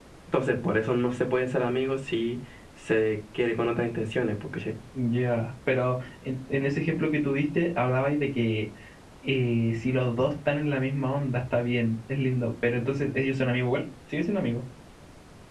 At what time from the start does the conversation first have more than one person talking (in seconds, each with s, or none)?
none